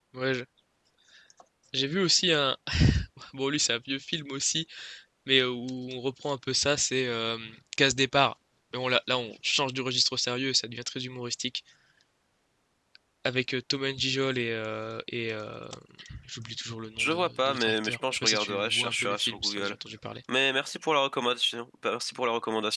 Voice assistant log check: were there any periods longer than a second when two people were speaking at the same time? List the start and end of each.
17.0-19.8

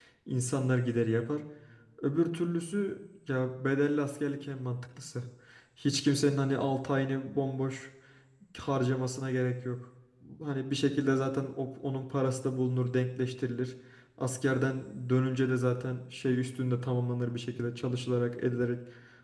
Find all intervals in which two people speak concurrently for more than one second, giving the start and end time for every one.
none

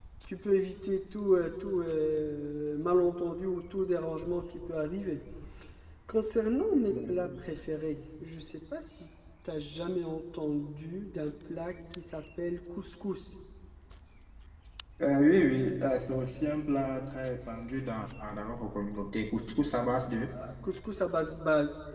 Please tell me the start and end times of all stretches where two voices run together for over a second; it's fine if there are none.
none

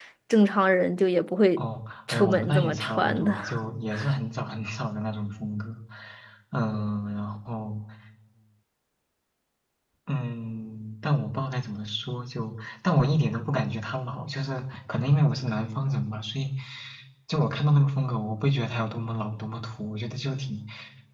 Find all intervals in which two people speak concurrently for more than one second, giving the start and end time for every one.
2.1-3.4

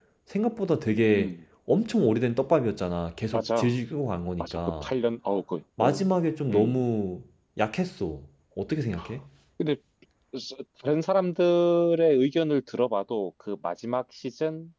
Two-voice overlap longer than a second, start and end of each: none

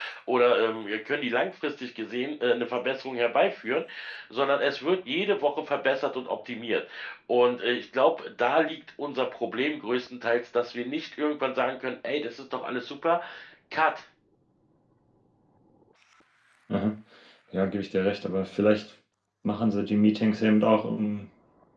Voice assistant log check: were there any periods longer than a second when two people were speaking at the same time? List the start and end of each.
none

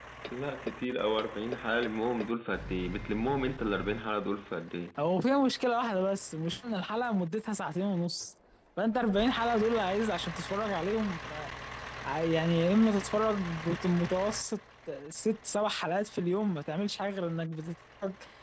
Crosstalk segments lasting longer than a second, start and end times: none

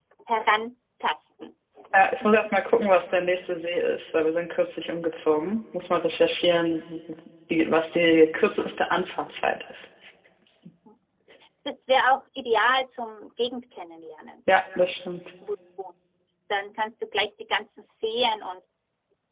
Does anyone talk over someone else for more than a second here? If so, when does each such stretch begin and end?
none

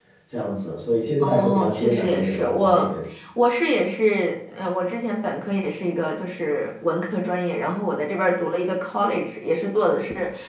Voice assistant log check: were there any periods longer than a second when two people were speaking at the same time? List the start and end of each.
1.2-2.9

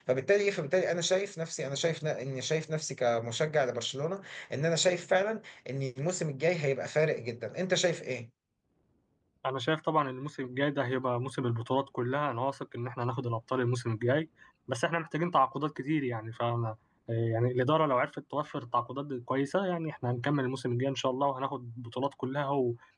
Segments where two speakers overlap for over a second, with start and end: none

